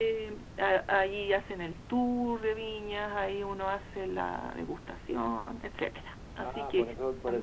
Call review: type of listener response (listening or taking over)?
taking over